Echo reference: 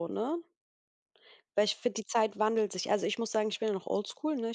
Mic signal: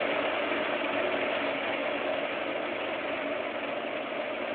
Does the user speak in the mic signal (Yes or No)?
No